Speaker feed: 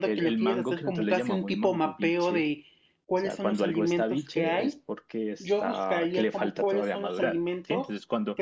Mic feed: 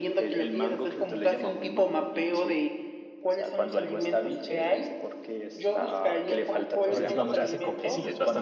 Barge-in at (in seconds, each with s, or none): 6.9 s